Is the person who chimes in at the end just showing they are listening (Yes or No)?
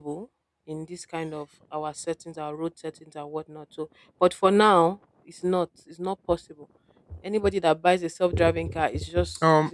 No